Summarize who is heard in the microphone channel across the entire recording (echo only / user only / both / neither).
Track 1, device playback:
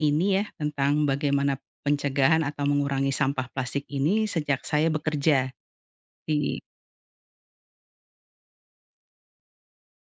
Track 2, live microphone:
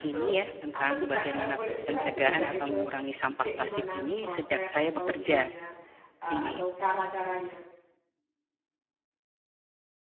both